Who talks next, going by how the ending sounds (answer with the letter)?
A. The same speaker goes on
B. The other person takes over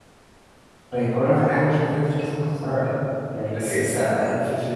A